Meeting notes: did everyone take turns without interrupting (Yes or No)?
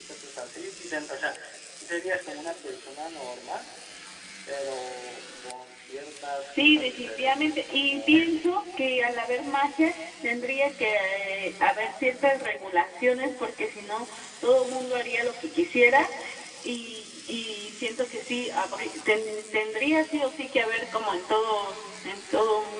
No